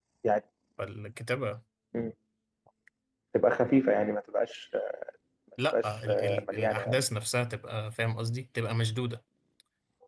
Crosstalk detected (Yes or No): Yes